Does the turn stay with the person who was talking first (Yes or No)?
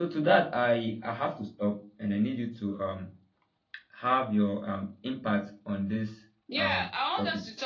No